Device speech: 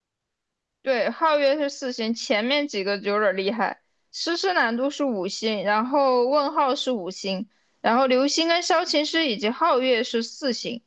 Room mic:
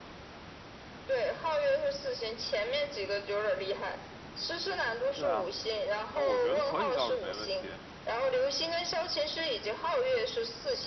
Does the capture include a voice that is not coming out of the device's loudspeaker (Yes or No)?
Yes